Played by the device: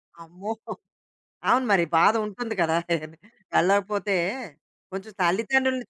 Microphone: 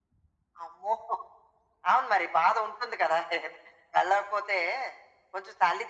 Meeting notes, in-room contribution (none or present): none